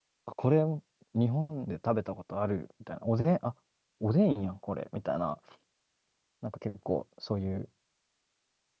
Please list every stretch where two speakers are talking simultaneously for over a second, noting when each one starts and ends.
none

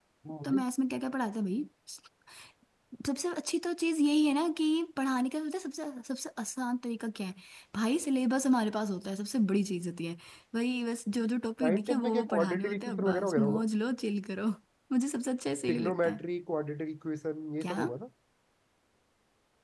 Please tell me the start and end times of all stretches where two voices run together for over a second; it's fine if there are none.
11.6-13.7

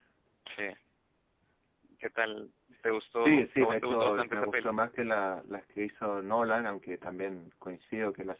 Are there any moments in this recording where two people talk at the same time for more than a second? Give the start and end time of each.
3.1-4.7

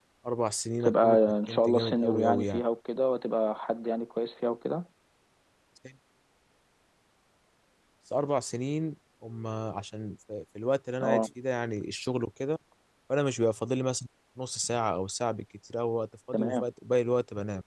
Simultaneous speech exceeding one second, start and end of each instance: 0.8-2.6

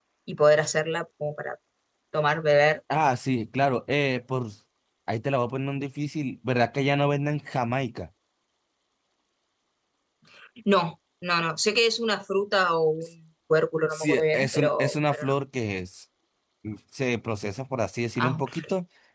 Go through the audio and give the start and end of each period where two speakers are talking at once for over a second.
13.9-15.3

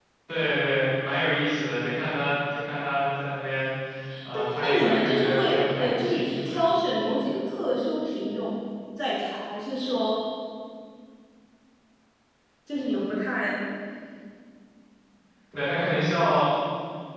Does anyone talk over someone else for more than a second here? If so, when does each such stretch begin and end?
4.3-6.3

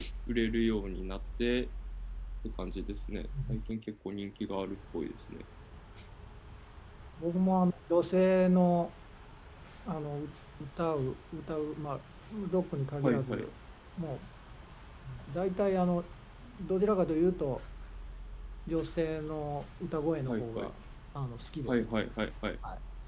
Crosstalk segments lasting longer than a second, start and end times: none

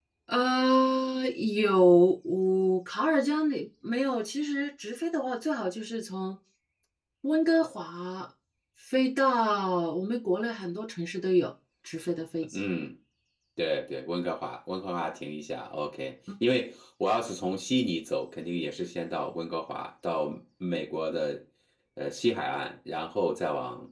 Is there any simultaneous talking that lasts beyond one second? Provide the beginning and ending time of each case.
none

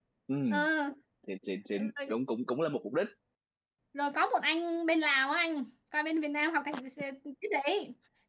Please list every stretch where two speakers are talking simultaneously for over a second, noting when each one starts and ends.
none

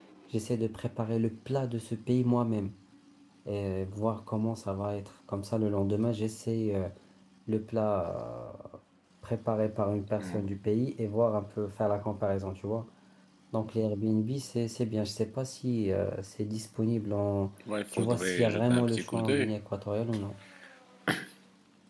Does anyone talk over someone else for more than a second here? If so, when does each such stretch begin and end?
17.9-19.5

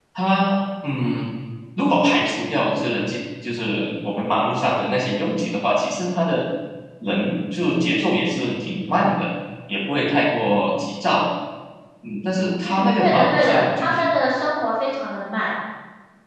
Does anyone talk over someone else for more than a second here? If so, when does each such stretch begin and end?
12.6-14.0

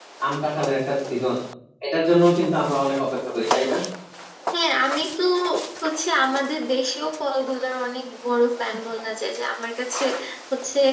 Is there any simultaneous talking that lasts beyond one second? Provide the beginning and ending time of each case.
none

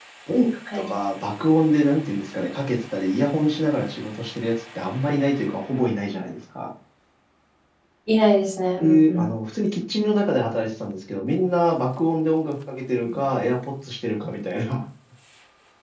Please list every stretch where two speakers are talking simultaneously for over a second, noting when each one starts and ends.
none

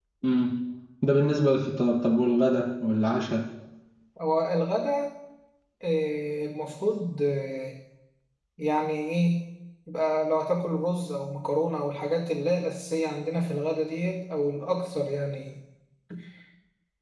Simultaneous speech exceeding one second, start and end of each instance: none

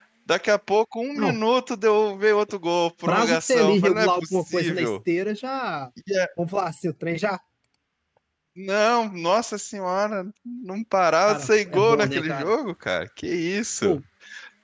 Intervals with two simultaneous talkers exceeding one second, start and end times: 3.0-5.0, 11.3-12.5

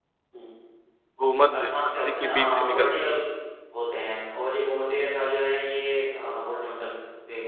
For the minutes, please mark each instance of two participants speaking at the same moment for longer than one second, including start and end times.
1.6-3.2

